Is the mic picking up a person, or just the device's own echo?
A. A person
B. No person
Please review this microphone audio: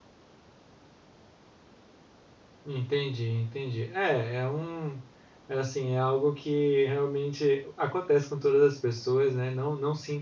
A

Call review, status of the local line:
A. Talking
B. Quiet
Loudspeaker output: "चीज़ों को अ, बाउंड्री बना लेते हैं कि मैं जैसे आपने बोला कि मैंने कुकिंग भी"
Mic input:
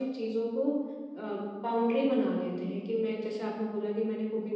B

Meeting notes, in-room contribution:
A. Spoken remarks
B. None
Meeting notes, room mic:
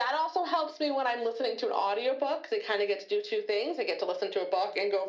B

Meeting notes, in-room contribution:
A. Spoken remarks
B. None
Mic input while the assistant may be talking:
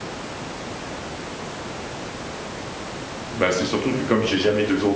A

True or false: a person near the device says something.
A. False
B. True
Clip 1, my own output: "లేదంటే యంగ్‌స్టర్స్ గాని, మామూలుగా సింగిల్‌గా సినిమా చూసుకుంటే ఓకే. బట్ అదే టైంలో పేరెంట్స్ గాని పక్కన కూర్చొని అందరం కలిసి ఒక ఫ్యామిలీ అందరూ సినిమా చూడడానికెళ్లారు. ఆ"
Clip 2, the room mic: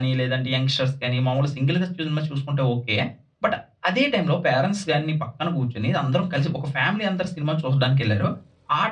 A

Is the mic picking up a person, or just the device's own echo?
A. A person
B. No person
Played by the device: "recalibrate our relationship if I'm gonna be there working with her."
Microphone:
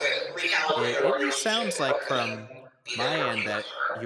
A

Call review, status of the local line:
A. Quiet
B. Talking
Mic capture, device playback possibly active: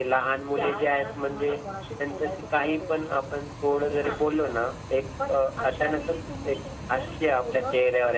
A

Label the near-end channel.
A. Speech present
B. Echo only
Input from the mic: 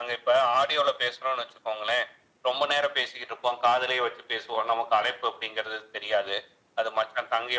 B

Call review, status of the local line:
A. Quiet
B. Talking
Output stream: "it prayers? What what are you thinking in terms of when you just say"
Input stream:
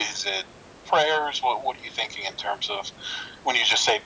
A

